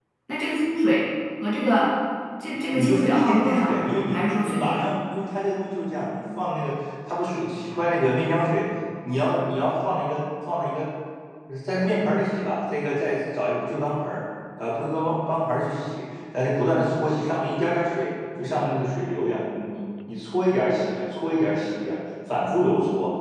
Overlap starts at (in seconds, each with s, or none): 2.7 s